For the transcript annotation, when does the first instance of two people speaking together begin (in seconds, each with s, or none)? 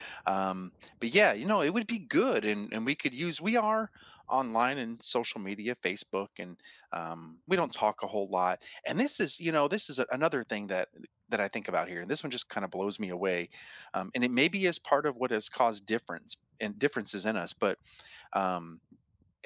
none